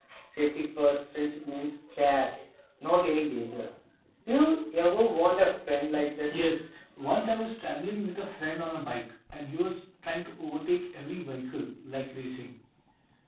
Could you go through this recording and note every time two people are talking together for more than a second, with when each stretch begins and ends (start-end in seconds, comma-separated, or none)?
none